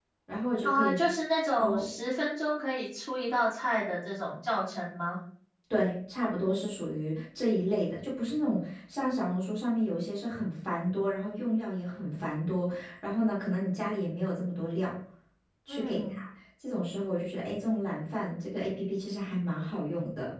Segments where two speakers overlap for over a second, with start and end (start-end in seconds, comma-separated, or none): none